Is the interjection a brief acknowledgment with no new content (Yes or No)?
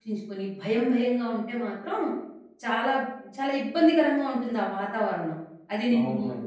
No